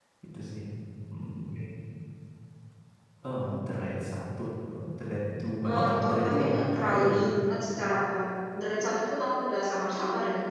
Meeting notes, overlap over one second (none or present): present